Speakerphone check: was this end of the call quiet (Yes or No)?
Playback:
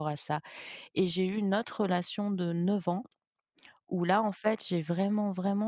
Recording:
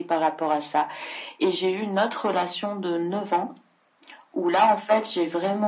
Yes